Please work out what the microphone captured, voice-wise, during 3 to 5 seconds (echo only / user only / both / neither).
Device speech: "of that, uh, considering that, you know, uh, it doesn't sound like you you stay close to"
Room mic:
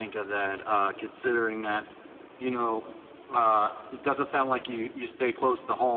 echo only